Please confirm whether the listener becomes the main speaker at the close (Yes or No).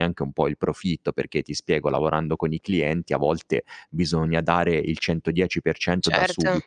No